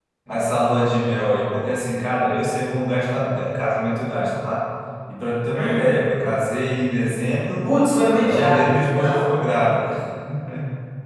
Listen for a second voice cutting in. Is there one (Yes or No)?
Yes